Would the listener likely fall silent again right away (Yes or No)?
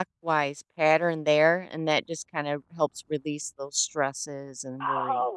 No